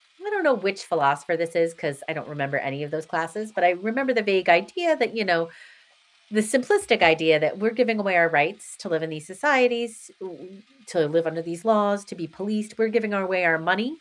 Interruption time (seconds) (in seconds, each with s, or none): none